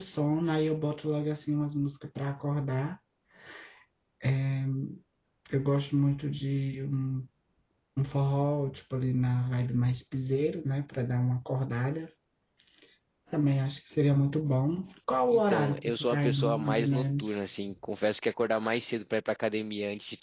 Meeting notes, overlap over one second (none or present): present